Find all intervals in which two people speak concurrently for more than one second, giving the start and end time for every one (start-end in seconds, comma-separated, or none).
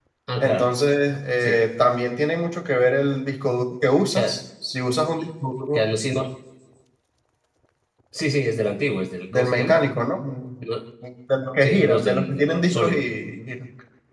11.6-13.0